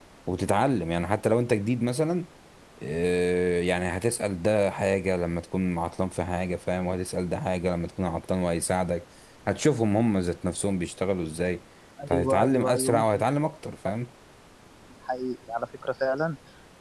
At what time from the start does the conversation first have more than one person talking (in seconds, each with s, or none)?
12.1 s